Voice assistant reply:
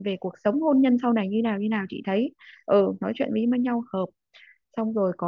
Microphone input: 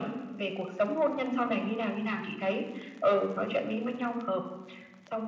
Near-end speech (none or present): none